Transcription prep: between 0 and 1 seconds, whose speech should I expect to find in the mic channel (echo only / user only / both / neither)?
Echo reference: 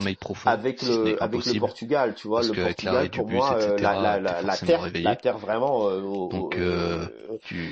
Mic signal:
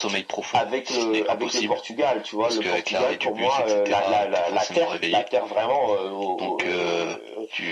echo only